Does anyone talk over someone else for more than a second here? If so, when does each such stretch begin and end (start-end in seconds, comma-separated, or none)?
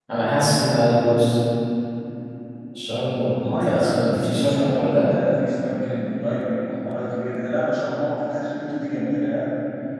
3.5-5.1